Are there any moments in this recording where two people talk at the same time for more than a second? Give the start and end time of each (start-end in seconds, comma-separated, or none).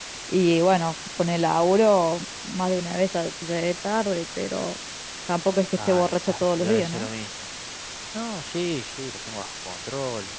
5.8-7.1